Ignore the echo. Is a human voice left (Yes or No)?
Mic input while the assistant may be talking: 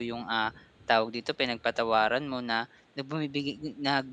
Yes